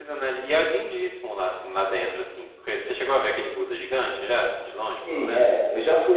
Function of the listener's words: taking over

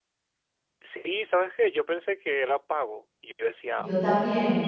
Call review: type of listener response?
listening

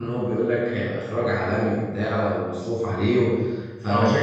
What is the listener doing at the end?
listening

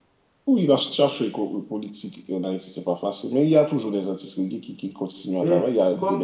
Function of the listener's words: taking over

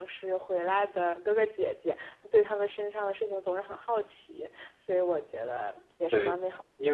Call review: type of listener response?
taking over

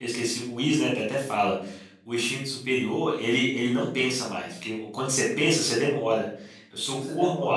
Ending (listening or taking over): listening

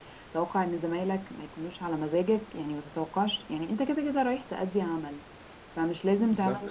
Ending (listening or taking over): listening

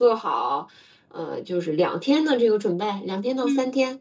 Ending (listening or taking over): taking over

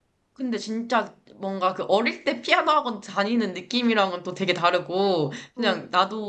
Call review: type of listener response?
listening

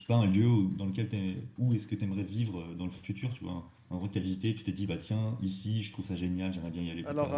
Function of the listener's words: taking over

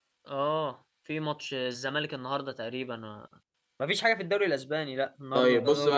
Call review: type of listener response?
taking over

